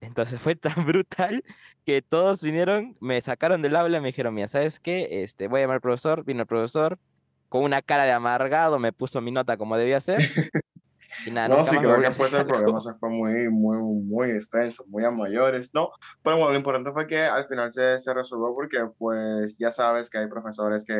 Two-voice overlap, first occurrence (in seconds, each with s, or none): 11.4 s